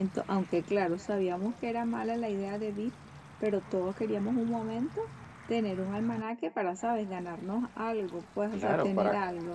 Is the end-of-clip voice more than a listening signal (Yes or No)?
Yes